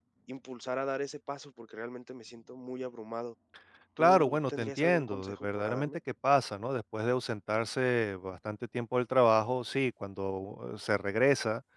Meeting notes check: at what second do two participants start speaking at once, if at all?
4.0 s

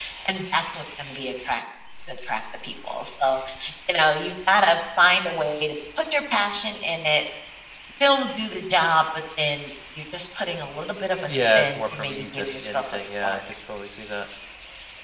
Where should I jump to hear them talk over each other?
11.2 s

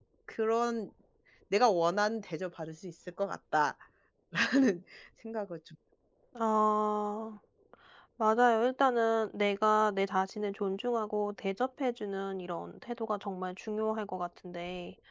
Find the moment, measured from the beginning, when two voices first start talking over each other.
none

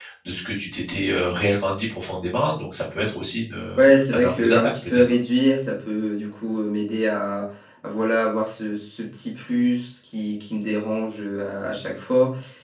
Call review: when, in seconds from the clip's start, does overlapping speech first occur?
3.8 s

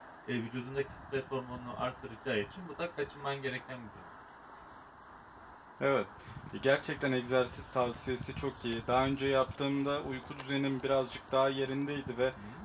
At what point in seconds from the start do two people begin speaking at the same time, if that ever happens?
none

